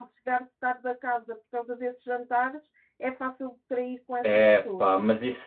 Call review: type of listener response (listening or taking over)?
taking over